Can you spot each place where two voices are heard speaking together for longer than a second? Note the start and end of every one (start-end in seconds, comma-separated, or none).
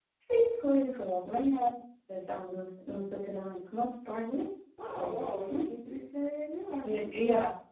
none